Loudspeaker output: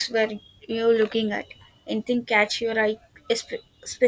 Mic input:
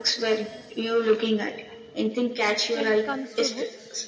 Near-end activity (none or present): present